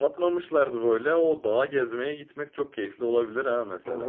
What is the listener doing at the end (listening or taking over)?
taking over